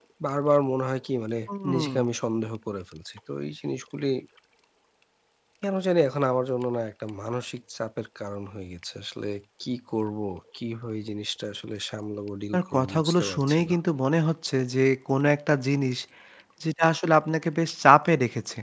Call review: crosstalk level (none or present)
present